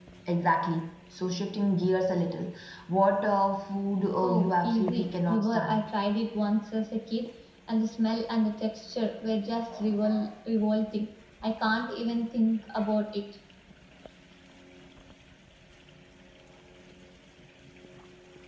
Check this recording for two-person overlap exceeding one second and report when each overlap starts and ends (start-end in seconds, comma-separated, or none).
4.2-5.8